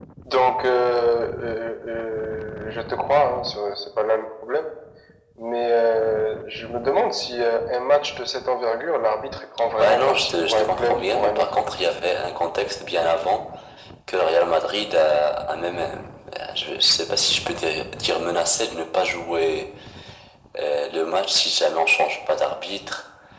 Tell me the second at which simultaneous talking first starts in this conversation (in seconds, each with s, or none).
9.8 s